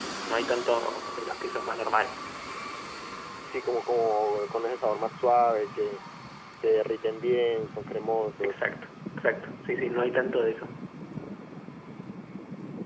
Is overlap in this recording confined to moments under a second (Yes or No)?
Yes